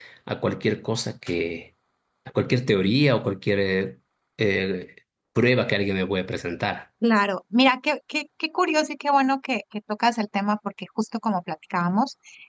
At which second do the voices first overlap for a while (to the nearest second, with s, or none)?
none